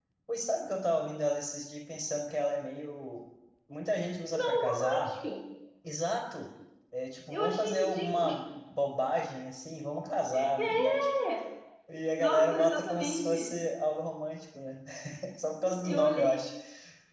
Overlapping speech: Yes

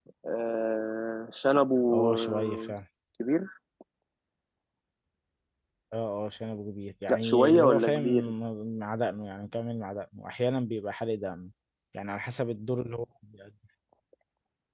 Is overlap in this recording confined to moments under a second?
No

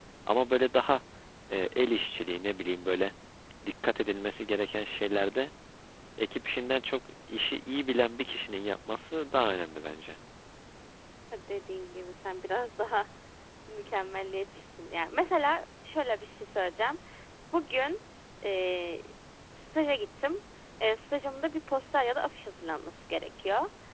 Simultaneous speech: No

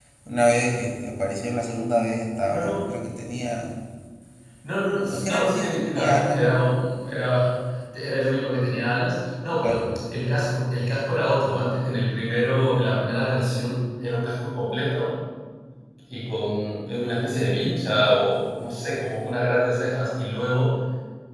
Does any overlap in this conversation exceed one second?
Yes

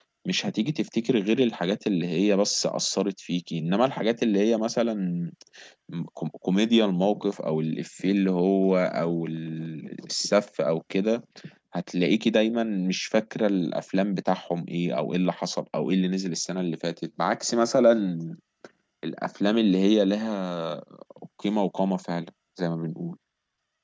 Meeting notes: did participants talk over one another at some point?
No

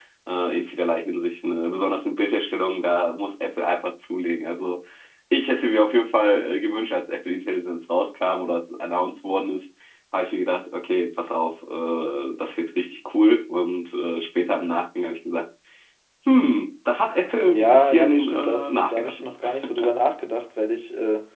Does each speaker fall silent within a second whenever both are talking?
No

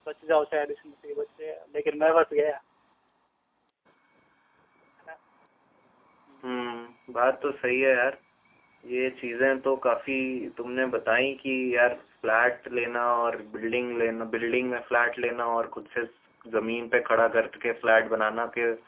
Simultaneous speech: No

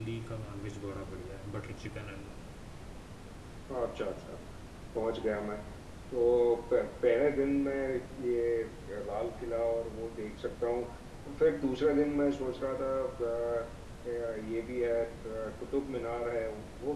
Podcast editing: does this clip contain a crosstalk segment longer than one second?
No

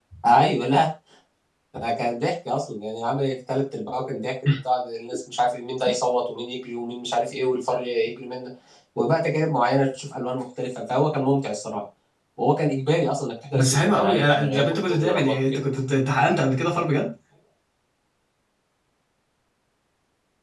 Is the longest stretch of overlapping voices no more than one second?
No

